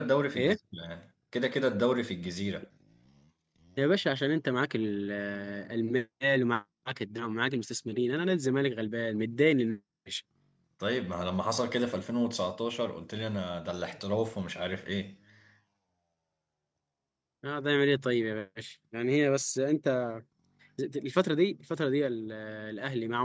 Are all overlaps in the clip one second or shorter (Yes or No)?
Yes